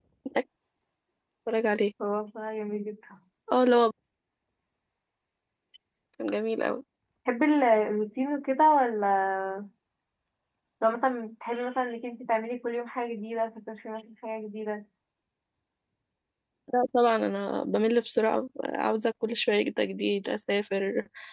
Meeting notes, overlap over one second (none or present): none